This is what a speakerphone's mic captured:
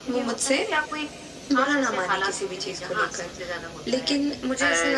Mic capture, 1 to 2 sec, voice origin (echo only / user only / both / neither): echo only